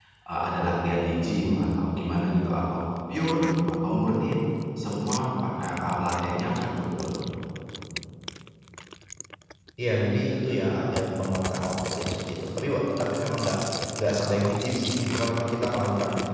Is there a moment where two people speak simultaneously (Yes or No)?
No